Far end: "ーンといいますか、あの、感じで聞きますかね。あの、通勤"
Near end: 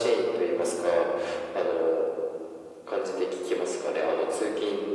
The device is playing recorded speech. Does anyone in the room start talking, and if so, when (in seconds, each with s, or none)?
none